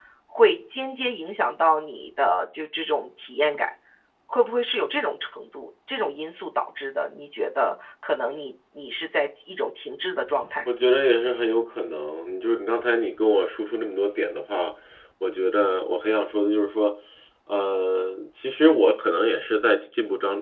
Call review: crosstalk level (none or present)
none